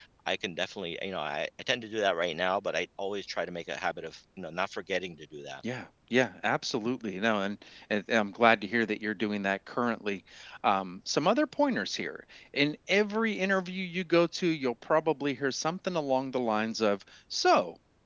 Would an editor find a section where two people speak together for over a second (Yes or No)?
No